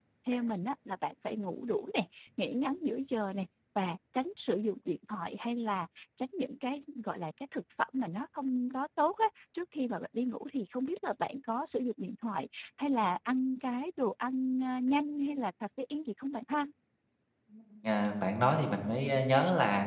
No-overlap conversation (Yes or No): Yes